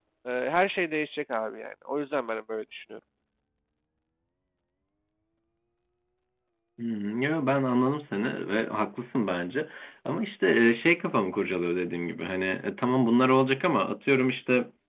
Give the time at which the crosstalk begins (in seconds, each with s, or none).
none